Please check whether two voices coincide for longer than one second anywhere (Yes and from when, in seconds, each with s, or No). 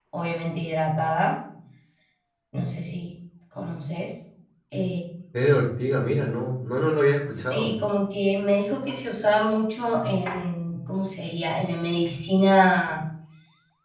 No